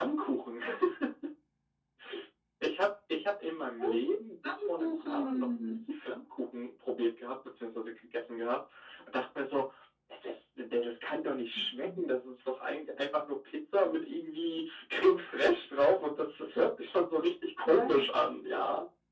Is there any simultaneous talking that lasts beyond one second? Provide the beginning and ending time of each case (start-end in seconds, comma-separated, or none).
4.4-5.8